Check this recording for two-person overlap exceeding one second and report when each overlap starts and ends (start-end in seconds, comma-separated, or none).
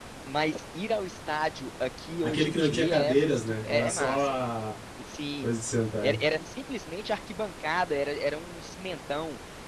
2.2-4.3